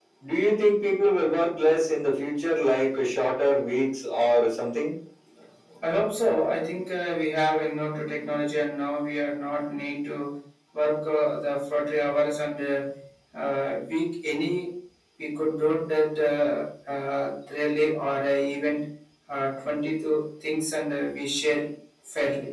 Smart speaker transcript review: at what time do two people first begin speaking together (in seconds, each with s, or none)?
none